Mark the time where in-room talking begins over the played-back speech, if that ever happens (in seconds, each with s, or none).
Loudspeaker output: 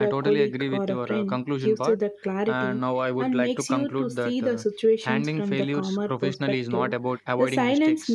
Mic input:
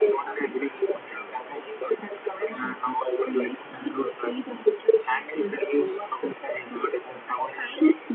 none